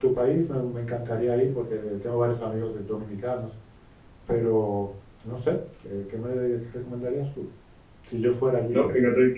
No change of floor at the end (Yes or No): No